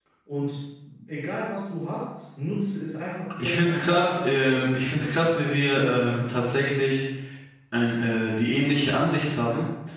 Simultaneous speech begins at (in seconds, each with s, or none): 3.4 s